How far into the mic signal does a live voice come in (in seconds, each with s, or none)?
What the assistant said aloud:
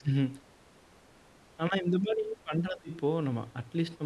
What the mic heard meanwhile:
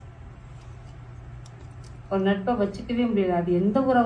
2.1 s